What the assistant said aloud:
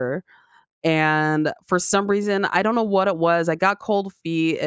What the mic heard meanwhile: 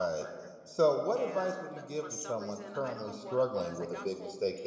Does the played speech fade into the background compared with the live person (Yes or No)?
Yes